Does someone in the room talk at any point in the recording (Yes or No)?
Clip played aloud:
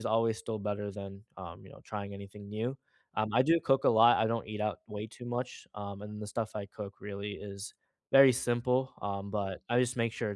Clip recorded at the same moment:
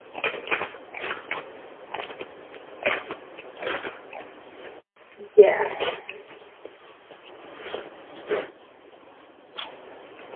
Yes